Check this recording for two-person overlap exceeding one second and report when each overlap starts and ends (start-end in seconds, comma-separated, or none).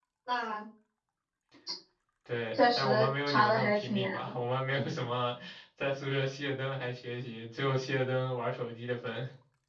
2.5-4.3